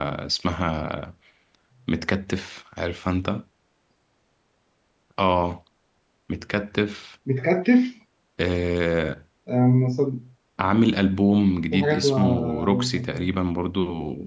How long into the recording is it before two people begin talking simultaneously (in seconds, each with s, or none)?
11.7 s